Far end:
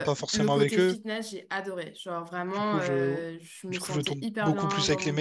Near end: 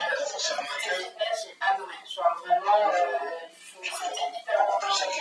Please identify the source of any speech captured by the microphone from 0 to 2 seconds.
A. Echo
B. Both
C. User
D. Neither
A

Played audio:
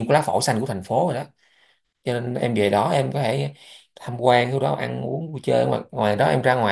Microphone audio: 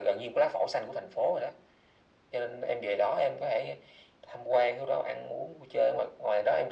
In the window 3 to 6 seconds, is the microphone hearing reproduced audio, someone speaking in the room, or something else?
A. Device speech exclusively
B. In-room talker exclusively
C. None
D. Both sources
A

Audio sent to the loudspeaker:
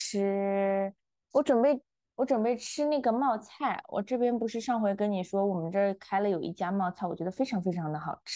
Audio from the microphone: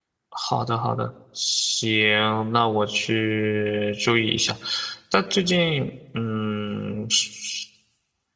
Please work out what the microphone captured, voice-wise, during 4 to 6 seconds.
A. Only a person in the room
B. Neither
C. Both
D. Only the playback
A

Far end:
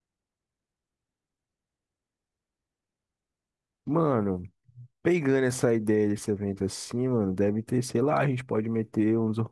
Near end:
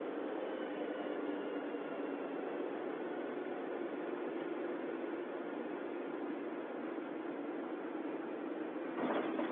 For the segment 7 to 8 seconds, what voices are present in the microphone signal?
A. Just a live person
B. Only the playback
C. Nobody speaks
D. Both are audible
C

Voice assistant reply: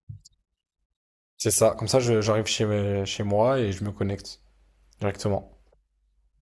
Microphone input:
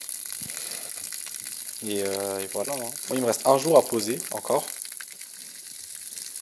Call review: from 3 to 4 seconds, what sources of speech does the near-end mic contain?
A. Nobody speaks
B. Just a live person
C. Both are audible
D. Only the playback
B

